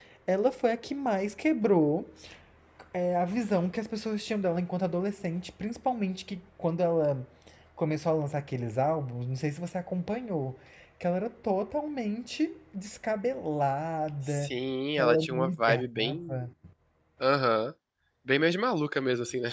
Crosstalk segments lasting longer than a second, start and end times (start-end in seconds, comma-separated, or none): 15.0-16.4